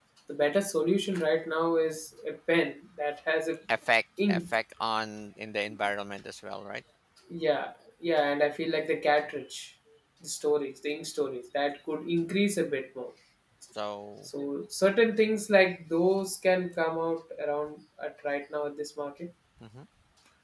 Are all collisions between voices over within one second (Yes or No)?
Yes